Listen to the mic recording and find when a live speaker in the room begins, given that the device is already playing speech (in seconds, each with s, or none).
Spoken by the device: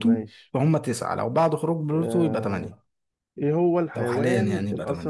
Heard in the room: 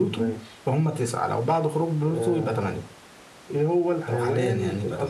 none